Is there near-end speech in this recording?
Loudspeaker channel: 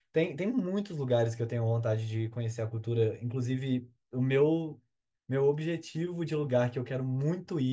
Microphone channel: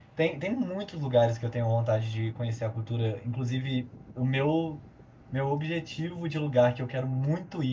No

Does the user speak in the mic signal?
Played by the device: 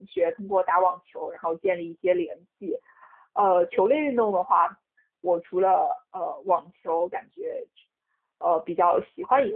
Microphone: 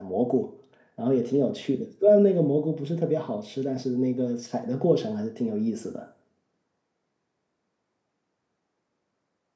Yes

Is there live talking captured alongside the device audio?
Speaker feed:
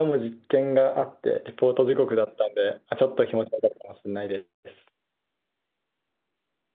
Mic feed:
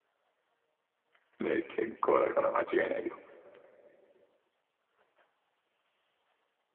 Yes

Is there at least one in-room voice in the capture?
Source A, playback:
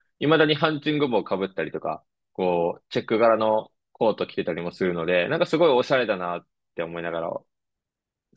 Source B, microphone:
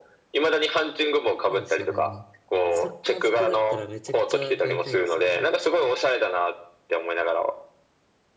Yes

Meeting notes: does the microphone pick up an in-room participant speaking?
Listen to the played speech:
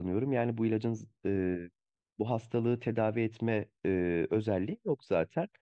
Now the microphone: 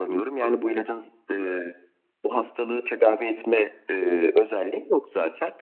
No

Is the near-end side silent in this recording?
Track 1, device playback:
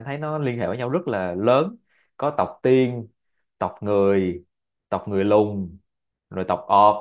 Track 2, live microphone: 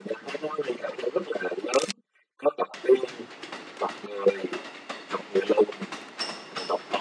Yes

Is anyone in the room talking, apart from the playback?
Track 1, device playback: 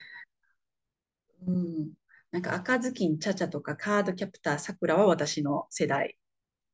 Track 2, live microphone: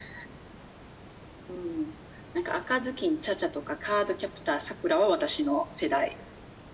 No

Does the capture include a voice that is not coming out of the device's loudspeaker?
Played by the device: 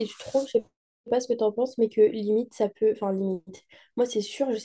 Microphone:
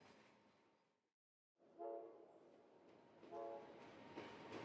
No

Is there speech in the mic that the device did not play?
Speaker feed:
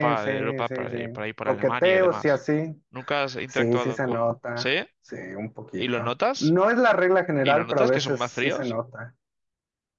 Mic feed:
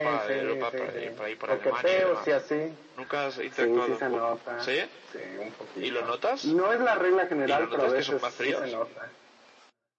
No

